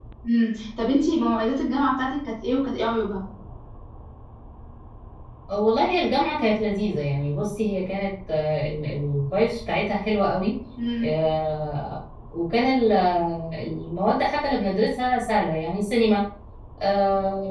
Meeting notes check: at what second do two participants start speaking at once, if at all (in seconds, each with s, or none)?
none